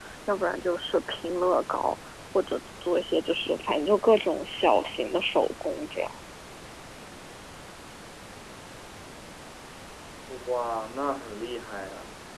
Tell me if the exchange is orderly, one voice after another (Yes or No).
Yes